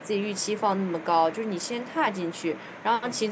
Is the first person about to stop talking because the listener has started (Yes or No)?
No